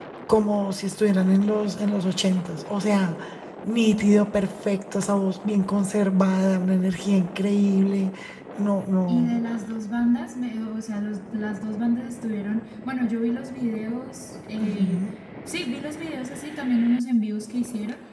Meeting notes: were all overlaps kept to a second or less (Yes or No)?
Yes